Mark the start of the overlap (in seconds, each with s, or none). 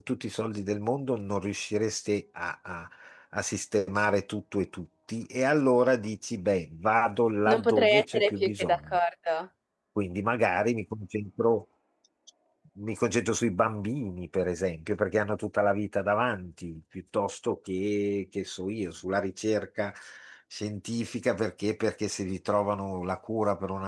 7.5 s